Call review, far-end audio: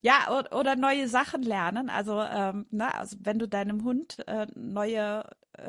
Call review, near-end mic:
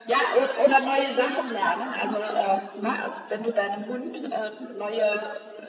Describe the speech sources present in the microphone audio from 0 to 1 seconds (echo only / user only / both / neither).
echo only